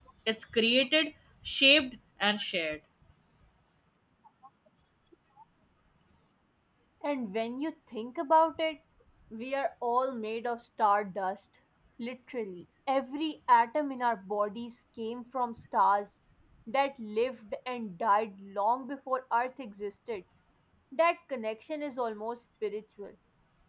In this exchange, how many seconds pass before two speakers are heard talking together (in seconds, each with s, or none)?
none